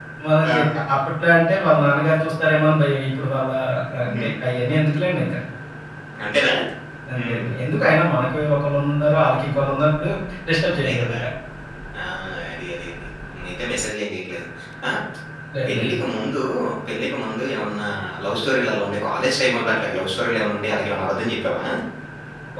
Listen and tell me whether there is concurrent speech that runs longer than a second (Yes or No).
No